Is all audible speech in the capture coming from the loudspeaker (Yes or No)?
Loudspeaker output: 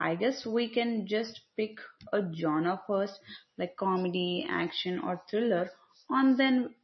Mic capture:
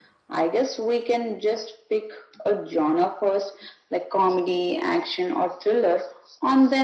Yes